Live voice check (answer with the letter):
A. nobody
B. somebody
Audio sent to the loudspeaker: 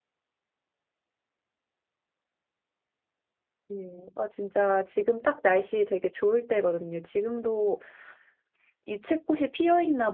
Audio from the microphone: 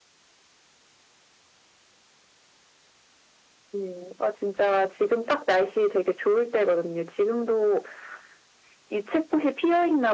A